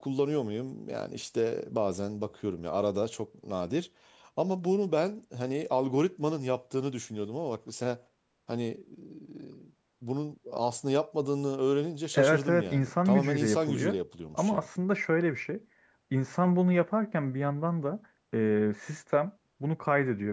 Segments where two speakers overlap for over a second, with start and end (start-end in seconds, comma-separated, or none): 12.1-14.0